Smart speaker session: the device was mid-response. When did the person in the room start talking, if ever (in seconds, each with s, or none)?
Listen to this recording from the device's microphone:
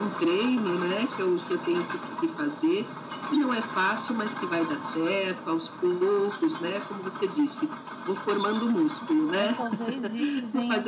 9.3 s